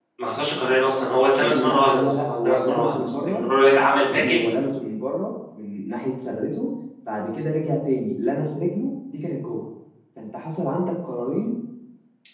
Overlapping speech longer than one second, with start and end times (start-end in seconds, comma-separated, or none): 1.4-3.5